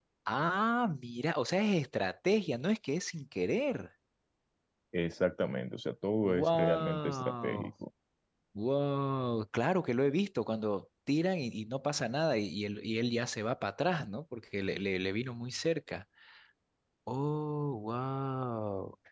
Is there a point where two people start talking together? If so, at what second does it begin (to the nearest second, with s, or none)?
6 s